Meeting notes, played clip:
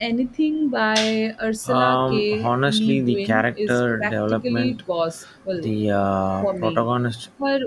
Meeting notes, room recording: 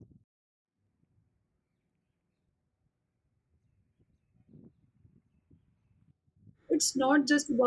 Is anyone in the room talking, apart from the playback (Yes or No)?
Yes